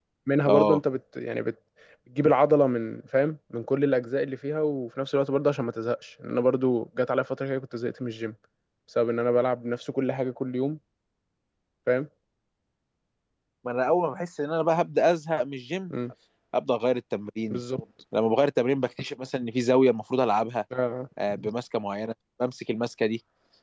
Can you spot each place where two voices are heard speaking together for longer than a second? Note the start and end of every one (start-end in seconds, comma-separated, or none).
none